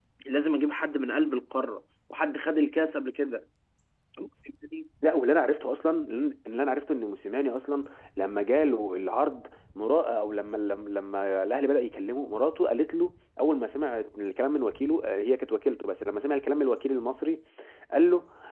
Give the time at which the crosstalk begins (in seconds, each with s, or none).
none